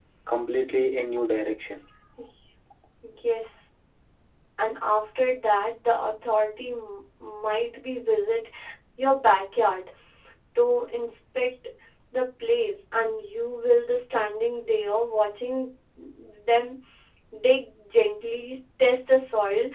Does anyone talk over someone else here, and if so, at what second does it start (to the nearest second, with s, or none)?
none